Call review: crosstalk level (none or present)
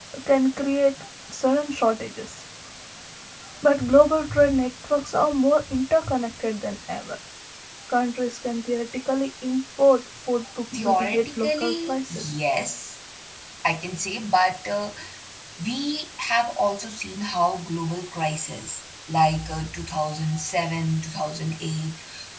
present